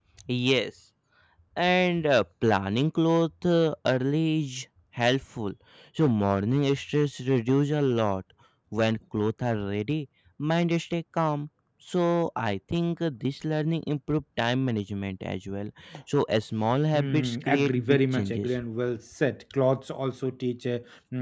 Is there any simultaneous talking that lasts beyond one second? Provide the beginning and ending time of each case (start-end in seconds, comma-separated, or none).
16.9-18.6